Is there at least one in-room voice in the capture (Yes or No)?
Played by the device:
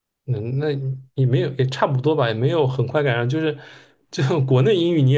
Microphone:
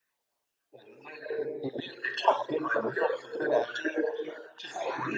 No